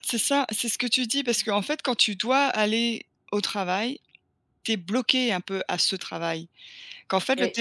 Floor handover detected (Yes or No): No